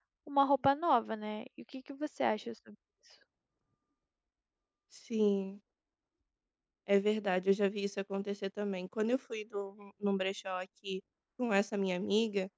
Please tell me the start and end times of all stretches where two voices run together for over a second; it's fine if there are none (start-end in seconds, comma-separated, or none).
none